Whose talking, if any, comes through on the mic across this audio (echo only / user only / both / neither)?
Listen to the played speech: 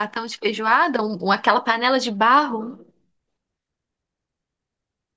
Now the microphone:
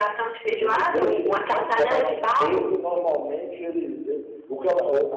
both